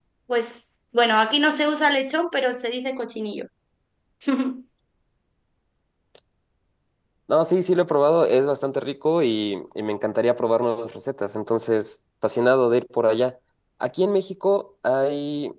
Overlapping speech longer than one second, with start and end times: none

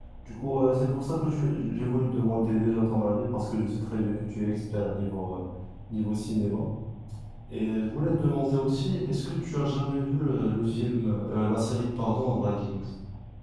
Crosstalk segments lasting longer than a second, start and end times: none

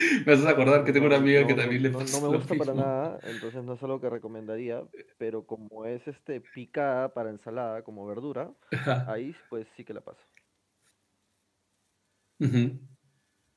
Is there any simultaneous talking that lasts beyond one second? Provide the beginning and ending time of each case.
0.7-3.0

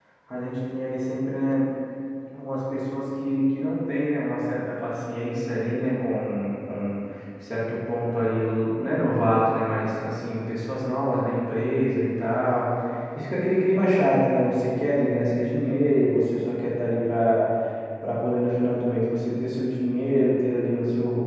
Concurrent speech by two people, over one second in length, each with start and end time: none

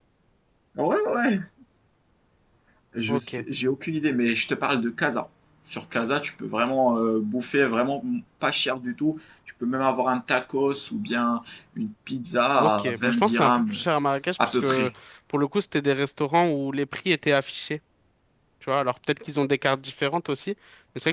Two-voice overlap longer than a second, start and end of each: 12.6-13.8

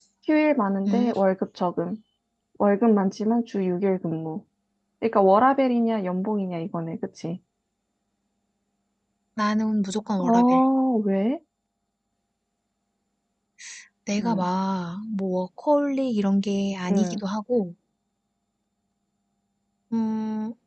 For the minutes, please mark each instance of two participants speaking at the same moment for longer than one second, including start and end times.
none

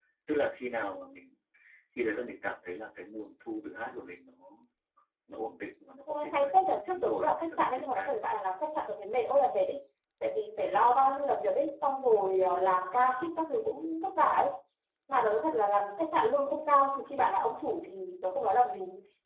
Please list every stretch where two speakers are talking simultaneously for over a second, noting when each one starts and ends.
6.1-8.1

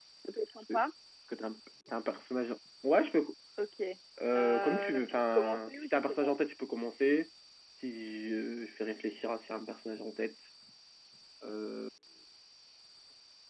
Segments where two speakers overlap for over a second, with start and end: 4.4-6.3

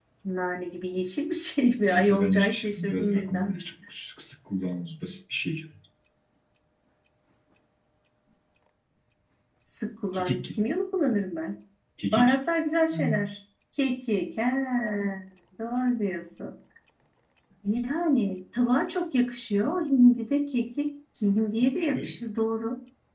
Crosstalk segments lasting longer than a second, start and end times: 1.9-3.6

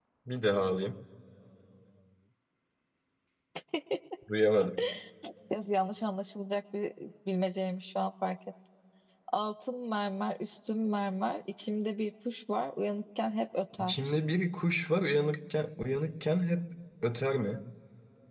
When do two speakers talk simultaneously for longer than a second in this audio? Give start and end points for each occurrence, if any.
none

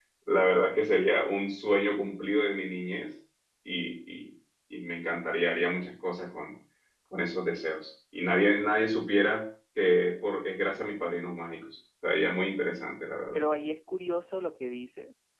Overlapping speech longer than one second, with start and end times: none

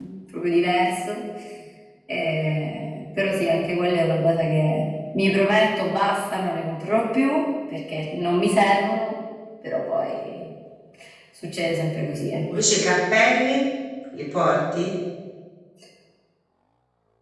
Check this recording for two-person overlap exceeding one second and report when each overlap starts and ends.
none

